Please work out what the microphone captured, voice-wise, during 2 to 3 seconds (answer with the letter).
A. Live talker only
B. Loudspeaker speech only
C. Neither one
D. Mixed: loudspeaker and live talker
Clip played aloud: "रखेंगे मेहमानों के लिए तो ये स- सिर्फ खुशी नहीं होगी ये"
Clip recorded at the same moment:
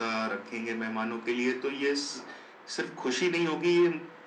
B